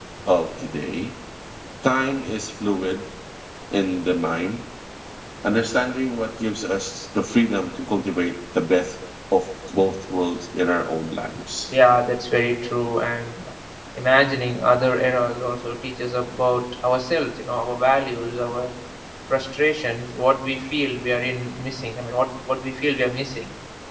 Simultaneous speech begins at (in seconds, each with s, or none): none